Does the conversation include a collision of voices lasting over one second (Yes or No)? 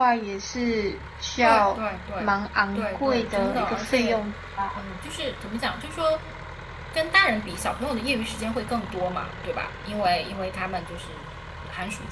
Yes